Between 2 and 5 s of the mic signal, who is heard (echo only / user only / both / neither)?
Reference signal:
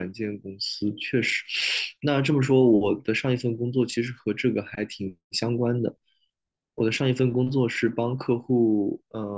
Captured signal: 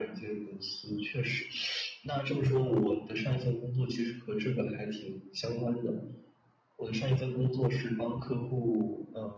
echo only